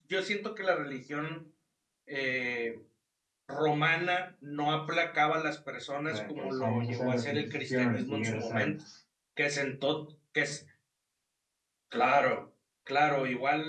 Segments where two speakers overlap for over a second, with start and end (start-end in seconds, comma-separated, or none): 6.1-8.8